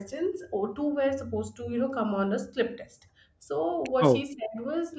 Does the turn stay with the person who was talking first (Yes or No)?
Yes